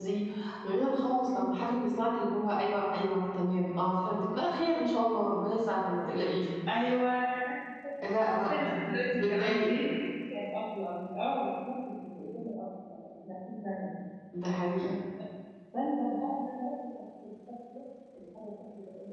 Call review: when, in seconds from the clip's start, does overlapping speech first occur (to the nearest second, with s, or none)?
8 s